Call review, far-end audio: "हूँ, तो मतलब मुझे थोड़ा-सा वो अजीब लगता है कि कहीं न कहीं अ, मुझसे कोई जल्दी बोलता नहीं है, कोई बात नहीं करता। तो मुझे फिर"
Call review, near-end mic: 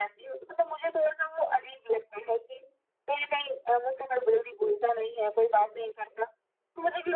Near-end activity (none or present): none